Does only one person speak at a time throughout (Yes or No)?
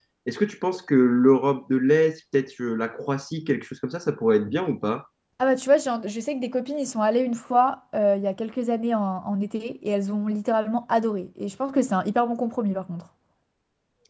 Yes